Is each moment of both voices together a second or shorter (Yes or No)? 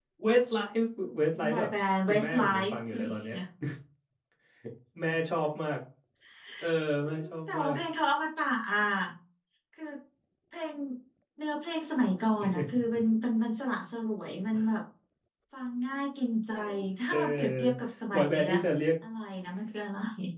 No